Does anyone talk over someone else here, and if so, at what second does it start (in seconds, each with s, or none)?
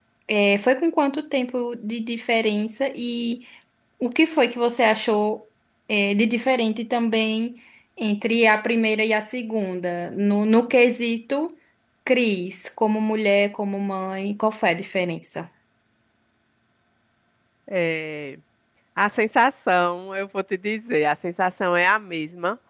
none